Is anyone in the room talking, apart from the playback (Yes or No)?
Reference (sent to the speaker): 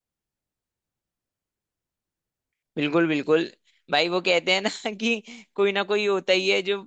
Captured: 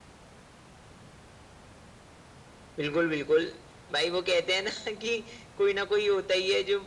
No